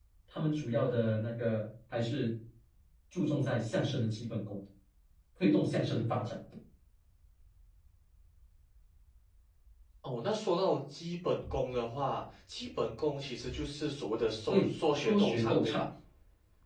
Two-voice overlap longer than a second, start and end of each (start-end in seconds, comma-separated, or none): 14.5-15.9